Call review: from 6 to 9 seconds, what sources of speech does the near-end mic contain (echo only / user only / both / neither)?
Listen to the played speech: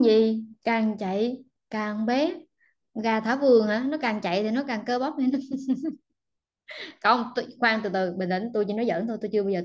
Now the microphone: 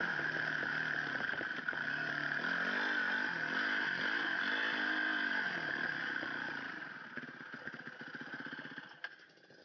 neither